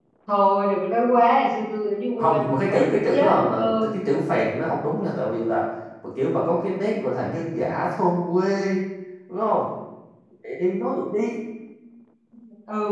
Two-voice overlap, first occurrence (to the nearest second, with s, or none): 2 s